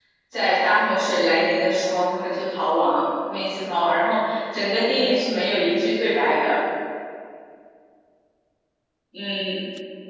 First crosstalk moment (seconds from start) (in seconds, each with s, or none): none